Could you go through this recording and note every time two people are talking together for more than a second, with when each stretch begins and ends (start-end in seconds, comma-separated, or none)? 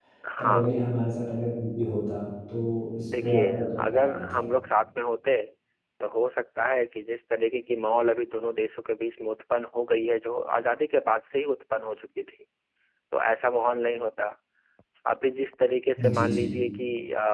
3.2-4.4